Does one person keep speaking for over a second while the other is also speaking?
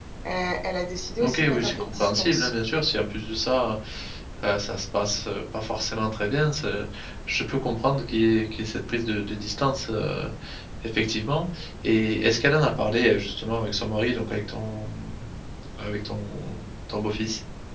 Yes, from 1.2 s

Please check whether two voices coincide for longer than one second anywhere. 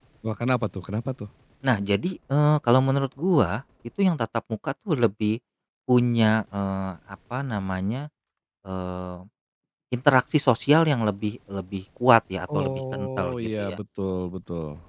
Yes, from 12.5 s

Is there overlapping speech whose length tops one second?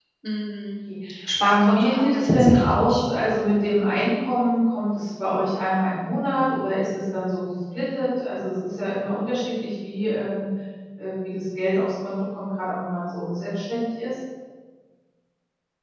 Yes, from 1.4 s

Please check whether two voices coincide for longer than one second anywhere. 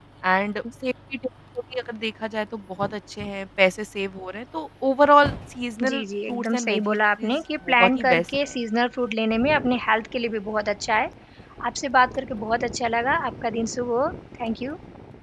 Yes, from 5.8 s

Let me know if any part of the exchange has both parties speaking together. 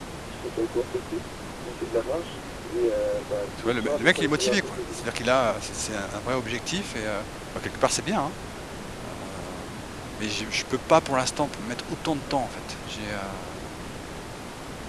Yes, from 3.5 s

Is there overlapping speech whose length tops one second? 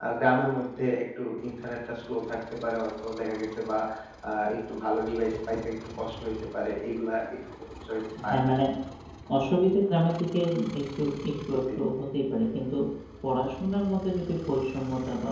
No

